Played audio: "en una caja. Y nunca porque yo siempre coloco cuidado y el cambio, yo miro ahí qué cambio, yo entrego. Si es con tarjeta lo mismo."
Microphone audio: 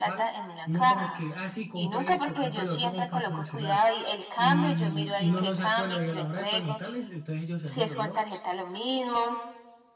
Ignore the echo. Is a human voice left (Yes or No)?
Yes